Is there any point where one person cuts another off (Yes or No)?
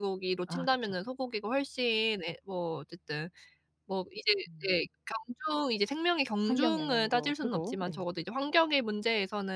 Yes